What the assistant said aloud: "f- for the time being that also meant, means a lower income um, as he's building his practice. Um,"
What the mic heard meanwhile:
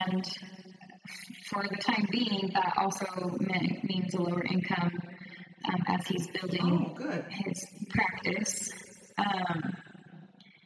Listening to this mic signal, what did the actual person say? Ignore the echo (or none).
Oh, good.